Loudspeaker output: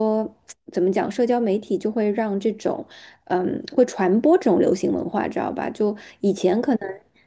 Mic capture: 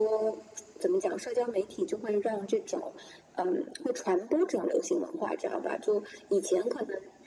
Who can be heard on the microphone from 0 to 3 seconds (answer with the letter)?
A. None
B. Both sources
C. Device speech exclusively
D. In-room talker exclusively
C